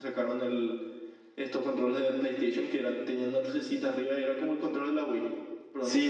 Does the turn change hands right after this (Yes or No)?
Yes